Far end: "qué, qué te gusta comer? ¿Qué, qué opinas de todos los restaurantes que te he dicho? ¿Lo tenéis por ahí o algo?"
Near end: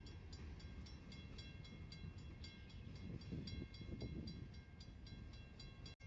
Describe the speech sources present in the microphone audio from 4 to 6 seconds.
neither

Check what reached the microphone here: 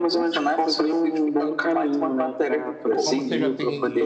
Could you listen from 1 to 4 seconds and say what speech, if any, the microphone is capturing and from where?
both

